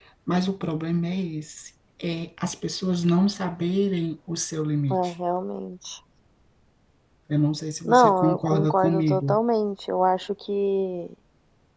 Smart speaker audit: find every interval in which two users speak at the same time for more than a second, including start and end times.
7.8-9.4

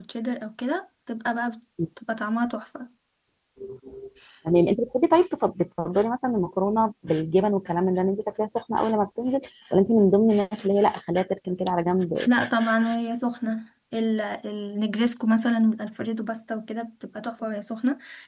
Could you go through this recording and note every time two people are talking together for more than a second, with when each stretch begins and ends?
none

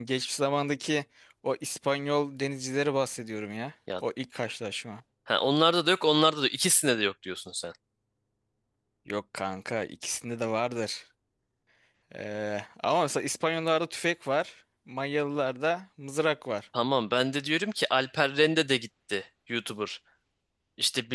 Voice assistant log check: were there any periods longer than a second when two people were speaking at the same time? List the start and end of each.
none

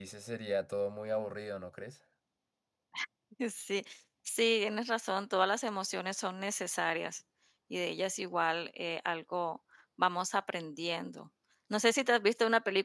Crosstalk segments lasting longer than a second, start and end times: none

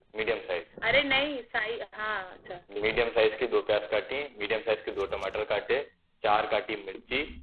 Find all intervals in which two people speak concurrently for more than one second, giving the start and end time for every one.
none

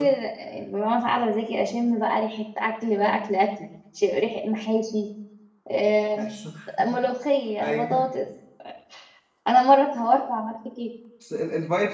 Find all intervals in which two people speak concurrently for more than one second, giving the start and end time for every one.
none

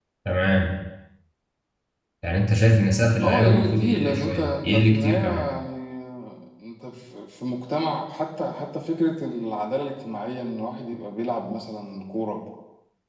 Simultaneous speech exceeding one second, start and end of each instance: 3.2-5.4

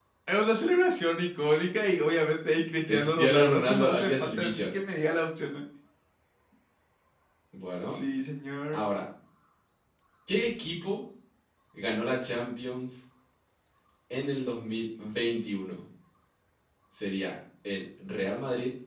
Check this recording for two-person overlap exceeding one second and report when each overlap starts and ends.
2.9-4.7

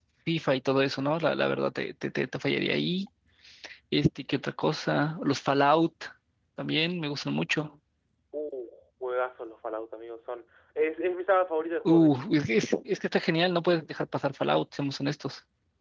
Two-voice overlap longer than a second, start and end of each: none

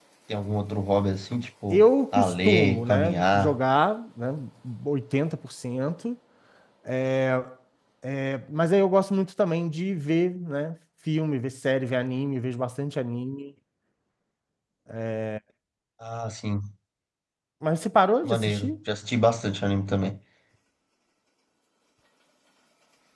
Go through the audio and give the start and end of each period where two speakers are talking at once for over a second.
1.7-3.6

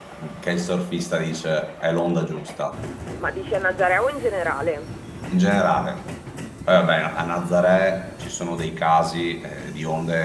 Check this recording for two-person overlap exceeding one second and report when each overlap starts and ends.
none

